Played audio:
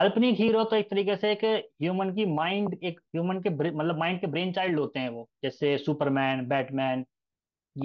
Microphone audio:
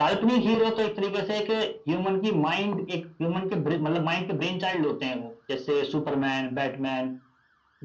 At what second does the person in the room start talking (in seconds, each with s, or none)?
none